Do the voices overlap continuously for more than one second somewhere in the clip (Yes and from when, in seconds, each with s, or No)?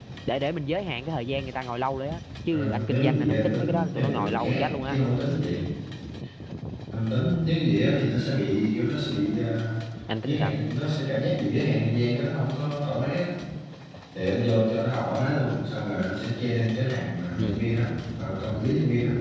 Yes, from 2.5 s